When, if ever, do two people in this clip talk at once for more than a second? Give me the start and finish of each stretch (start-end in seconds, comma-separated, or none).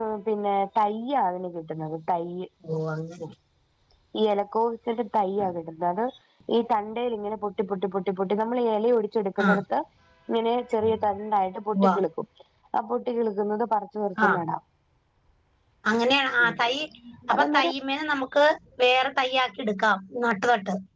none